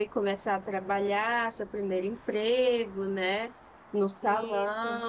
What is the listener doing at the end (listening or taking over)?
listening